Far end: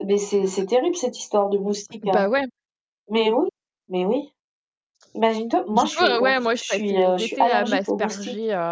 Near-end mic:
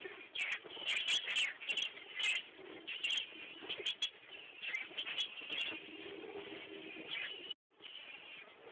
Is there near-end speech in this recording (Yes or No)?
No